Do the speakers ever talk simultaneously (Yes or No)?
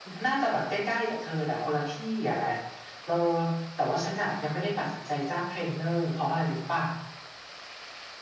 No